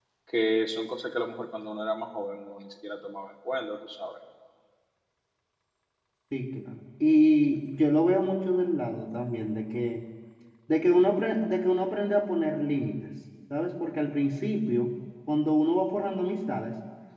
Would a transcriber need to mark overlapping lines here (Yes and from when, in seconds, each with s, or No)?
No